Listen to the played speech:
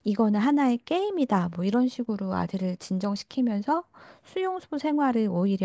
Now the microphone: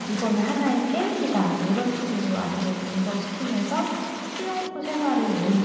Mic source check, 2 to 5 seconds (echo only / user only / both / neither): echo only